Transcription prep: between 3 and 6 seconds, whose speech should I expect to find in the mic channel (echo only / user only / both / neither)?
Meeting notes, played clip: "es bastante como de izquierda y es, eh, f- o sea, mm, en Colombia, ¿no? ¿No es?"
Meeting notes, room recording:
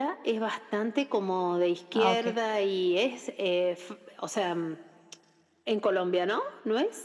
echo only